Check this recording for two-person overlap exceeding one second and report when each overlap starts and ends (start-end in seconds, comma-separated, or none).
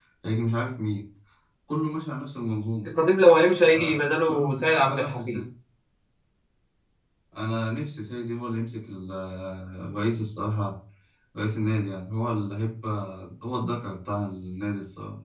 3.6-5.4